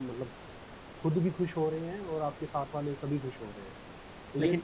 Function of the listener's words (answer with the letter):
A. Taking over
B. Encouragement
A